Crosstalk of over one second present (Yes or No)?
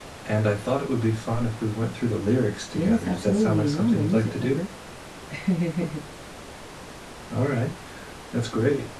Yes